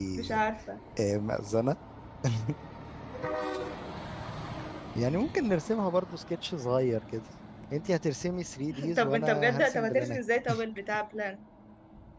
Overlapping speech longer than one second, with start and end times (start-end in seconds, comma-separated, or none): 9.0-10.2